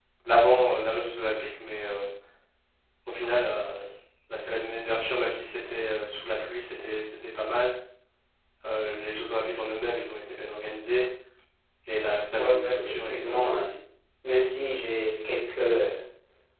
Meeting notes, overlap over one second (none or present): present